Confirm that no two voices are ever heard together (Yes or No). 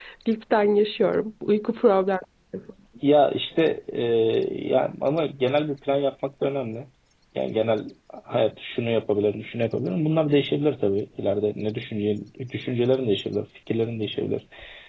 Yes